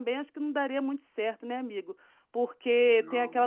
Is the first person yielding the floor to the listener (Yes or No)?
No